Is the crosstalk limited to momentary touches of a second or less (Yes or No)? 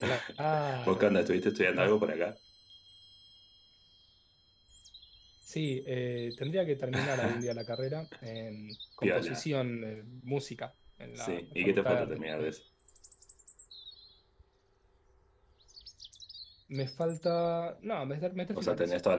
No